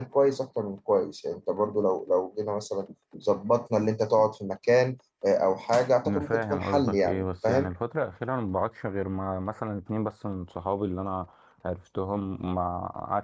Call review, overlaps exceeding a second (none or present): present